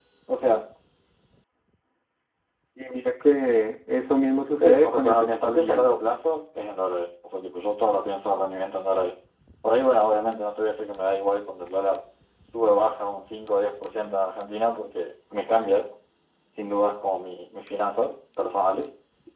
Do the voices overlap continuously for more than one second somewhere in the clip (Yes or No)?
Yes